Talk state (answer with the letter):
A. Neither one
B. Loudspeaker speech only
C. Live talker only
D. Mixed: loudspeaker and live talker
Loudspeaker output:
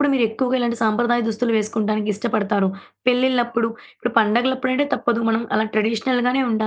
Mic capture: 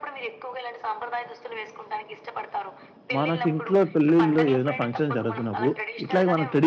D